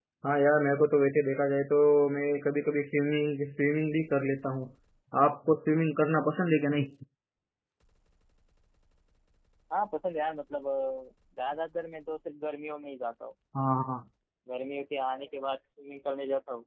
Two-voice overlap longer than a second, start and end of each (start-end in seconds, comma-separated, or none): none